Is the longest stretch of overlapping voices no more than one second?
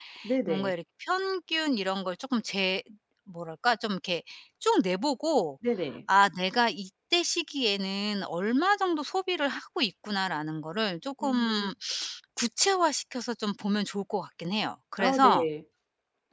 Yes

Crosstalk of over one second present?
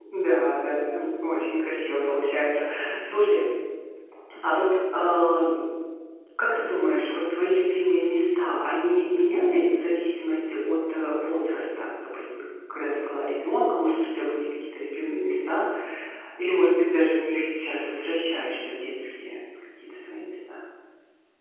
No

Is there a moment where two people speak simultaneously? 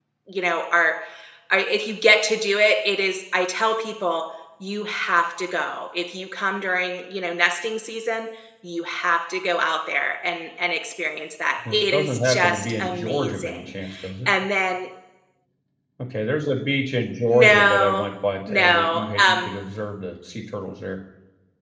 Yes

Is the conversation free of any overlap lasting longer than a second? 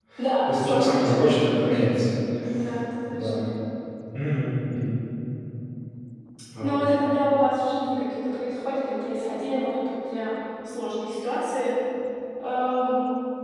No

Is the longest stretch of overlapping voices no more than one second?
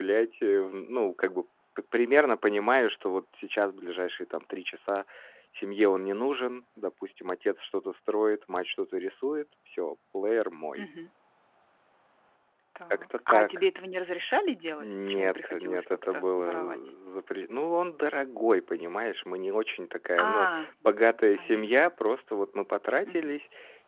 No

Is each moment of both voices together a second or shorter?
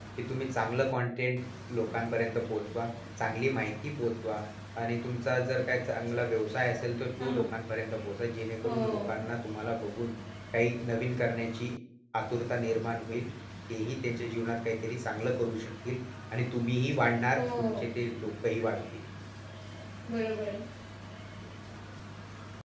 Yes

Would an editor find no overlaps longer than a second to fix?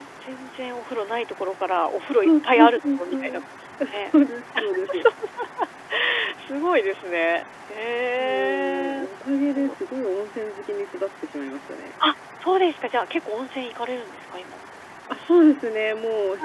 No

